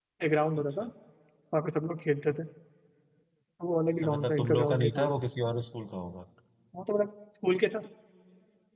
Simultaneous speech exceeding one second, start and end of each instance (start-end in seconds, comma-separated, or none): 3.9-5.1